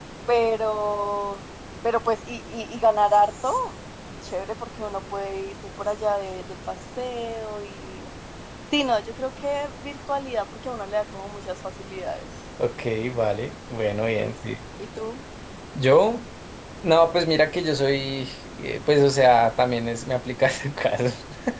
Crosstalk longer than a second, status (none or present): none